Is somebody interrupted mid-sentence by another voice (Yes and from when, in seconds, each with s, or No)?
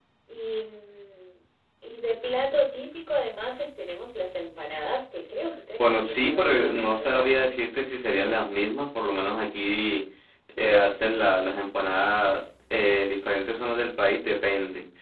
Yes, from 5.8 s